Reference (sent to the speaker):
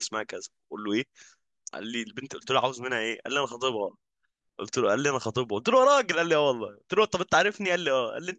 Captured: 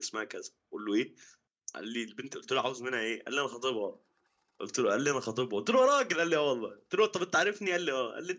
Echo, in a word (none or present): present